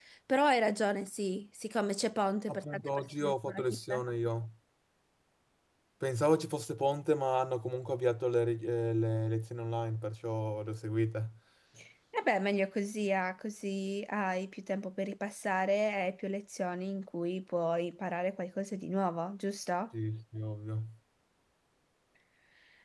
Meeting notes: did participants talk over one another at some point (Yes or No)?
Yes